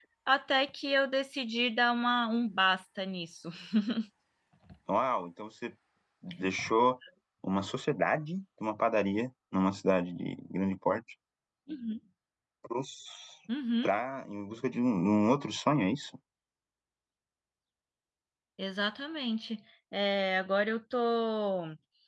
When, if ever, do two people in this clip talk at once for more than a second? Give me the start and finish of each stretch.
none

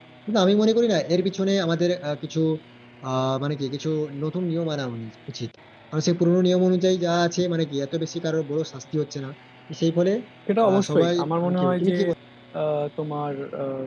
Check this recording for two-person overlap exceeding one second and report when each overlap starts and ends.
10.7-11.9

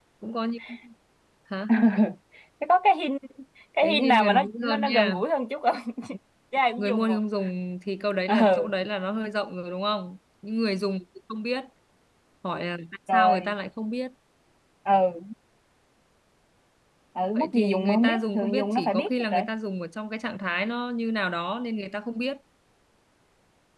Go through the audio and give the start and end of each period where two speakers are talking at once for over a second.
3.8-5.2, 17.4-19.4

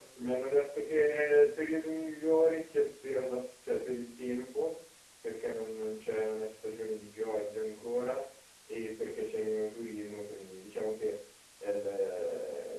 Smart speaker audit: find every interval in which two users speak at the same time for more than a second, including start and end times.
none

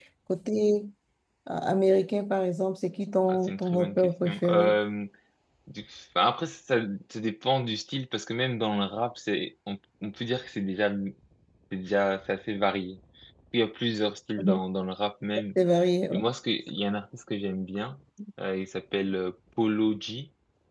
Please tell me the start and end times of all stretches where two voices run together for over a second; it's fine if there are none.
3.3-4.8

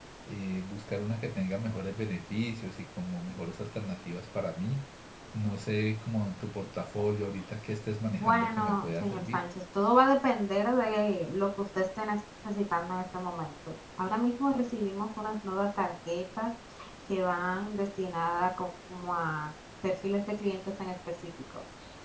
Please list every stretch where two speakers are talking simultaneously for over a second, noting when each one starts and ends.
8.1-9.4

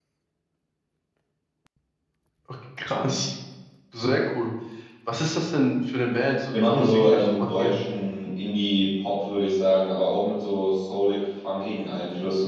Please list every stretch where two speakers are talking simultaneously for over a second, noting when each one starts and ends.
6.5-7.7

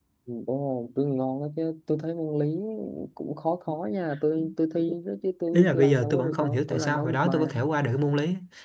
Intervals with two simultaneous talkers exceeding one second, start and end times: 5.5-7.5

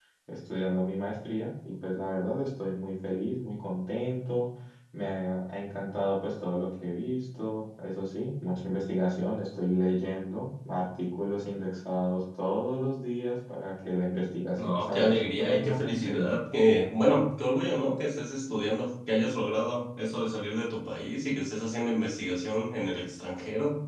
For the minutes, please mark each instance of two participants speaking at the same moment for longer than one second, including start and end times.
14.6-16.3

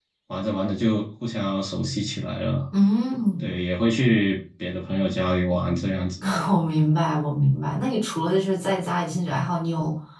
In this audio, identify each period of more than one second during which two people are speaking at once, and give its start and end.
none

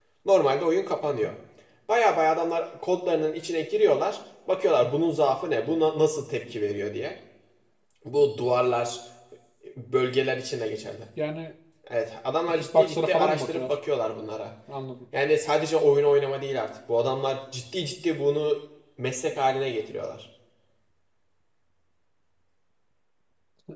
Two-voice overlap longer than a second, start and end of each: 12.5-13.8

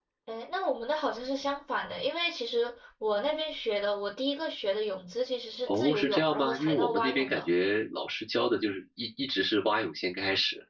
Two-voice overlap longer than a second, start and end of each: 5.7-7.5

